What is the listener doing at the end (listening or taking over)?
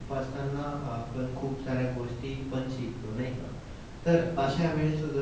listening